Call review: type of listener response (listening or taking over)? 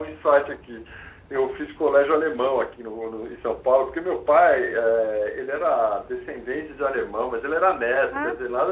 listening